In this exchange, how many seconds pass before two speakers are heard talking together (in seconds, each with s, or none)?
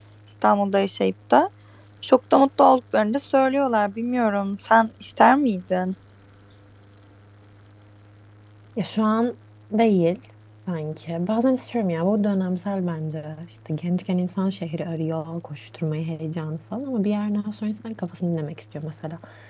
none